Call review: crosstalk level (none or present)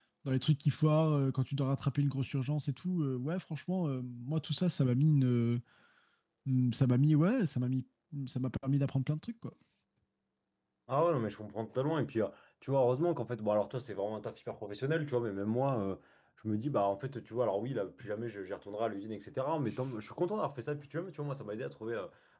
none